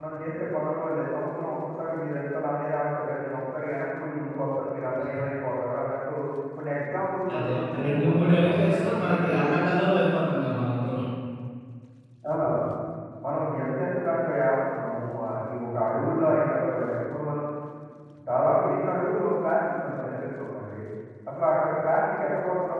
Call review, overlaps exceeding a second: present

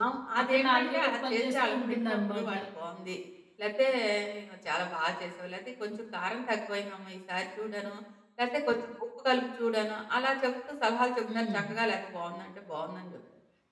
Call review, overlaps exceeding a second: present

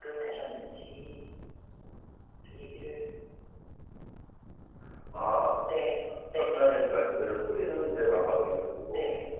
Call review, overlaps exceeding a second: none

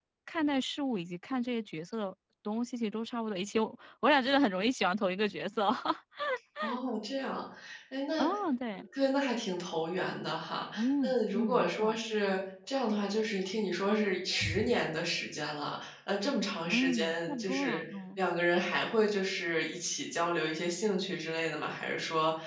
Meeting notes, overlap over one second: present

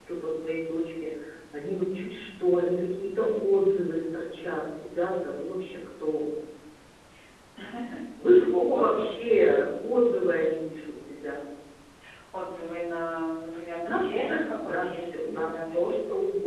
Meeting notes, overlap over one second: present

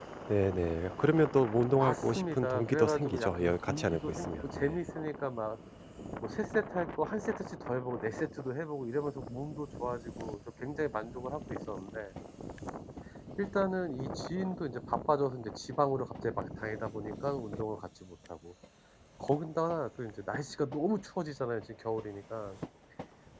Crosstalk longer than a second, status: present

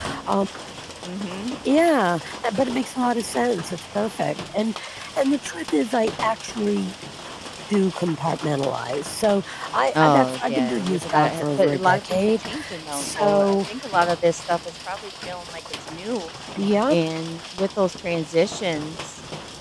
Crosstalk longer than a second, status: present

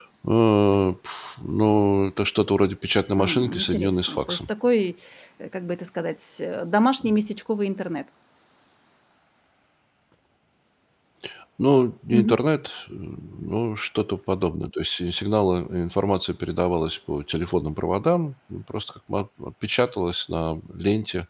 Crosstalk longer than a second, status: present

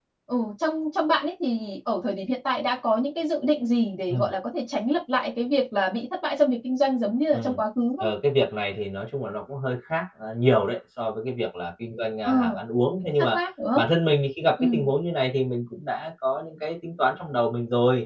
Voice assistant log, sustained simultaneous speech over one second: none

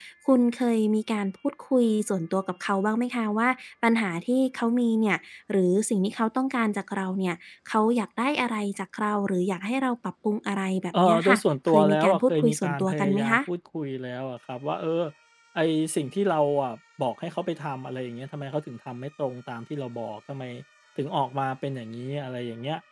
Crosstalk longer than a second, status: present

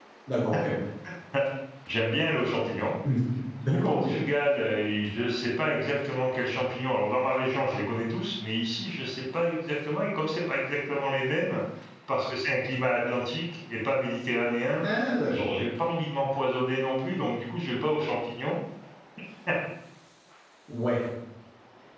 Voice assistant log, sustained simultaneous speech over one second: none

